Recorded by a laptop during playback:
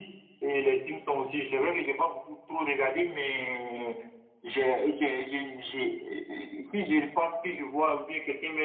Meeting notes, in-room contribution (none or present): none